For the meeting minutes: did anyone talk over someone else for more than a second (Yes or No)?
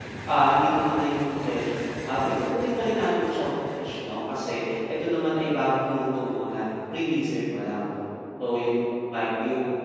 No